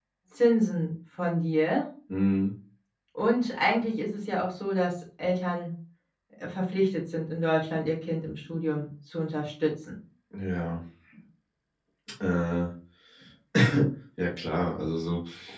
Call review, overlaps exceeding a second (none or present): none